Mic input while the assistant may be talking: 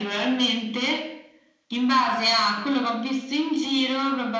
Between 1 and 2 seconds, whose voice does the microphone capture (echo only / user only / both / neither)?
echo only